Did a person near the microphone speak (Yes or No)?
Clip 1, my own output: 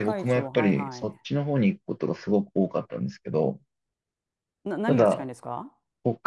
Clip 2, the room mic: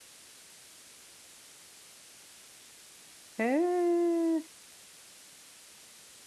Yes